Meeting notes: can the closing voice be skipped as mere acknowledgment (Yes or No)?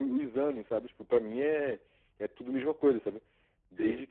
Yes